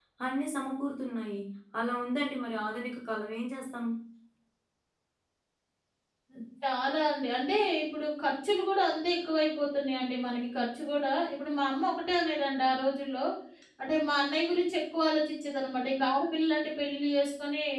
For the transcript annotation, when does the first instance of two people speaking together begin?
none

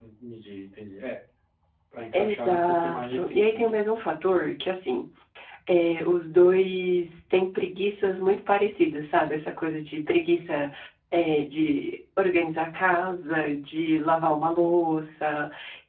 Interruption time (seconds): 2.1 s

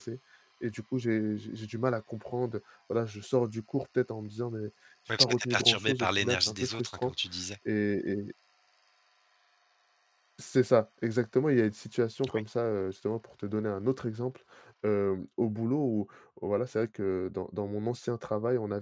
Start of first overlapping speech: 5.2 s

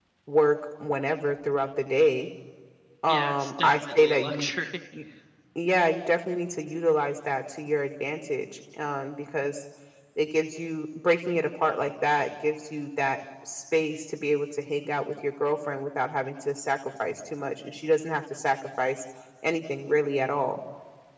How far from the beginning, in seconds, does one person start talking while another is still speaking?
3.1 s

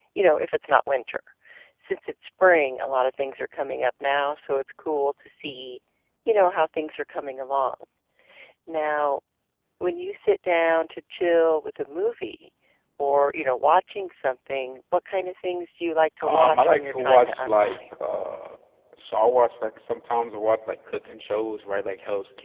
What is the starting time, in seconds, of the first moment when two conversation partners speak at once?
16.2 s

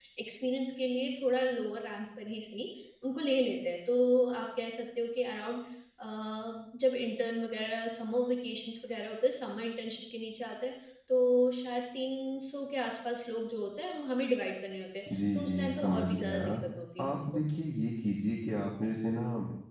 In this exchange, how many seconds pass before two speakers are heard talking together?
15.1 s

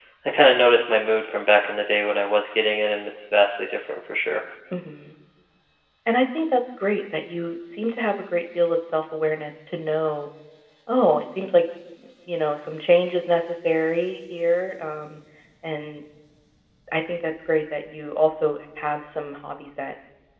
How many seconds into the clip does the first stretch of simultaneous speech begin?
none

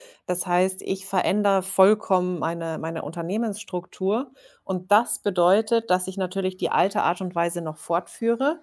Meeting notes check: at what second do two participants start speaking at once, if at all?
none

